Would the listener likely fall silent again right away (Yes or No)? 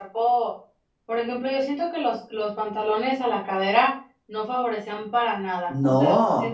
Yes